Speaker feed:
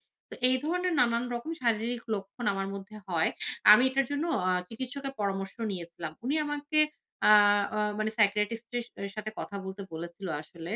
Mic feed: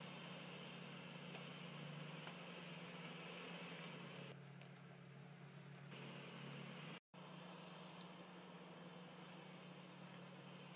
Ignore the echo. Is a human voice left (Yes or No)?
No